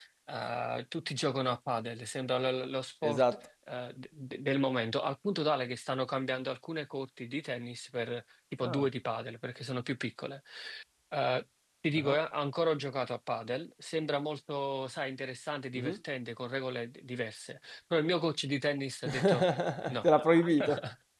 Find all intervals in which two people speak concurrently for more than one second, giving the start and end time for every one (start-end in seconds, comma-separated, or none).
none